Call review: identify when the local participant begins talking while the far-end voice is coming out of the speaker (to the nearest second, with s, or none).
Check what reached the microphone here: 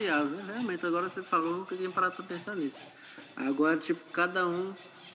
none